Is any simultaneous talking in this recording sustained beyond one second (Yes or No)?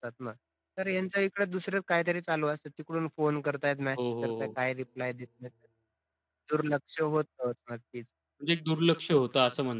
No